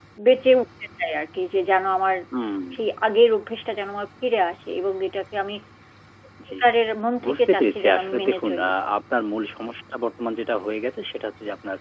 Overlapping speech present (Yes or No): Yes